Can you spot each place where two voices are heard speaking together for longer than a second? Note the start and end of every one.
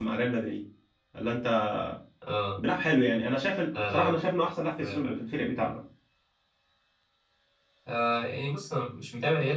none

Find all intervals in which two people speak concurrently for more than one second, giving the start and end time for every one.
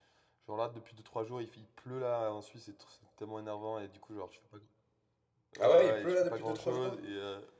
5.6-7.0

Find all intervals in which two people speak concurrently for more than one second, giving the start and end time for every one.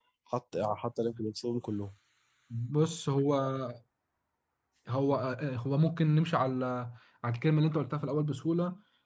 none

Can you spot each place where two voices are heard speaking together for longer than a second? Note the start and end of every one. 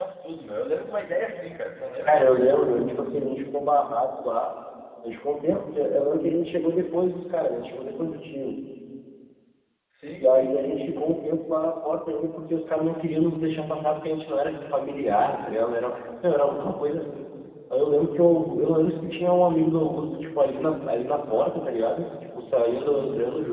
none

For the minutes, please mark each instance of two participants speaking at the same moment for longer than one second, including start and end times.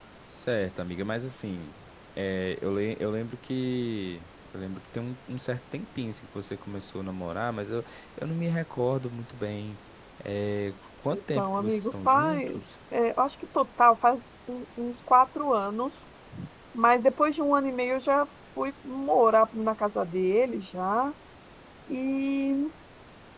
11.1-12.6

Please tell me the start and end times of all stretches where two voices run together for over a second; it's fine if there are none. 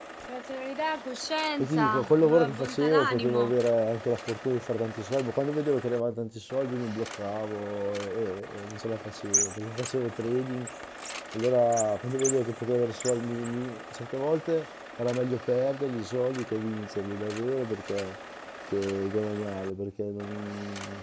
1.6-3.5

